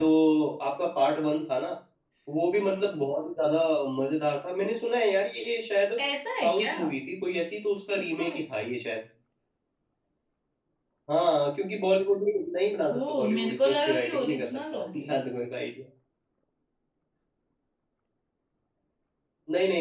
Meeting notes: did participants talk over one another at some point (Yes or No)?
Yes